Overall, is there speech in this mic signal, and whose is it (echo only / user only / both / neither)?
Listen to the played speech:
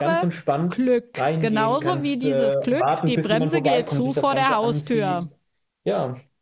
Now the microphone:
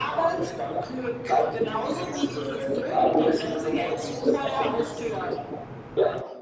echo only